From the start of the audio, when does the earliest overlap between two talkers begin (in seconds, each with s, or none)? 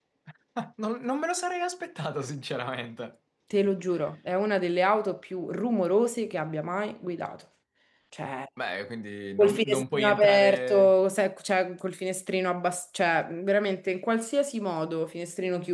9.4 s